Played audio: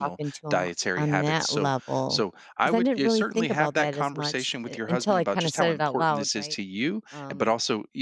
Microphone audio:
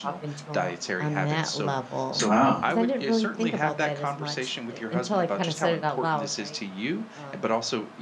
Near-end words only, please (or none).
Wow.